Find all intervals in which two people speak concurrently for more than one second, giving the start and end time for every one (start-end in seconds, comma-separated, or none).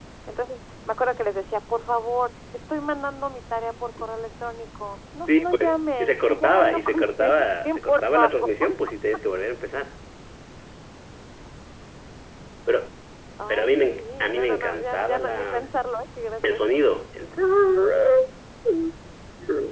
5.4-8.5, 13.5-15.6